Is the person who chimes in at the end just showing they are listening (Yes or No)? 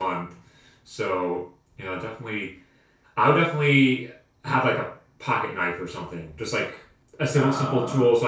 Yes